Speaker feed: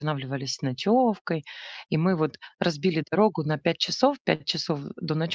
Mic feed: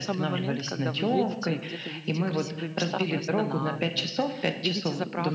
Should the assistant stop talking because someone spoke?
Yes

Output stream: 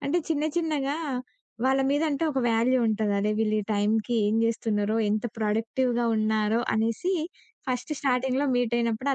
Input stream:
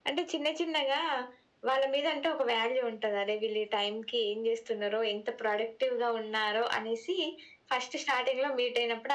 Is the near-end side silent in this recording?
Yes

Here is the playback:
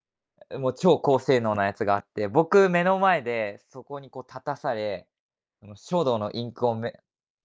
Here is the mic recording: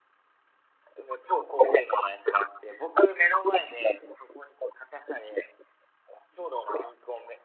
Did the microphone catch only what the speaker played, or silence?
Yes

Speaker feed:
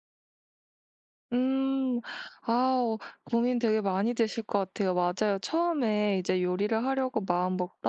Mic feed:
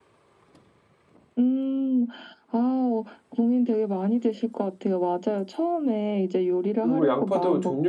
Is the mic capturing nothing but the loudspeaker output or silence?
No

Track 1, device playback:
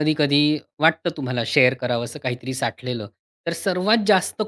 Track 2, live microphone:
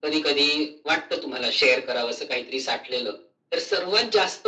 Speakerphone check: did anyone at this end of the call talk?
No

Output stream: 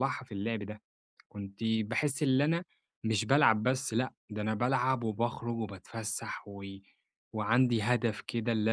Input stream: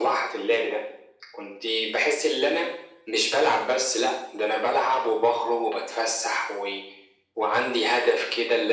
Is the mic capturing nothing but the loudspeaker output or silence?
Yes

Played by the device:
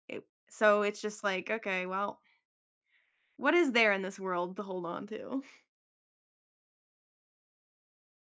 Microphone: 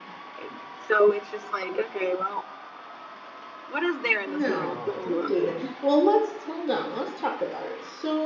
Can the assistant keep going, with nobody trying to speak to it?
No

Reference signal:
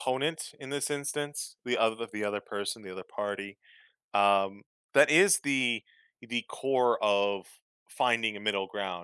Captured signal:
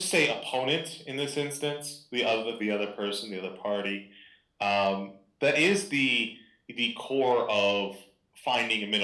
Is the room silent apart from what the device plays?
Yes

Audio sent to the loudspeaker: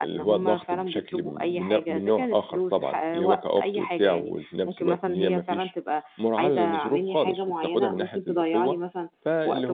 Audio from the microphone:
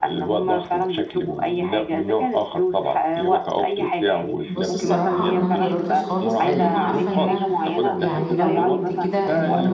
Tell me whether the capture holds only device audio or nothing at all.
No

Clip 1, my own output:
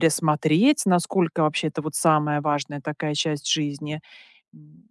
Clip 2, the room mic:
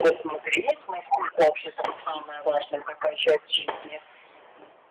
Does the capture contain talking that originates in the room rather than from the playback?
No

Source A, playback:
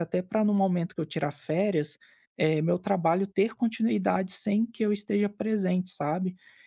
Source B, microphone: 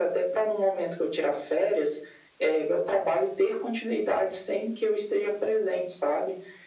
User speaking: No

